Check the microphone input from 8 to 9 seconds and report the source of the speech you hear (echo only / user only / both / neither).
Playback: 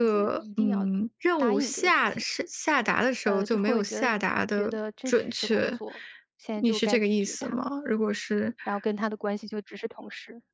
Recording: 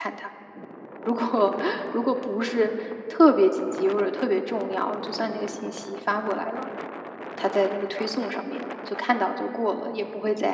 user only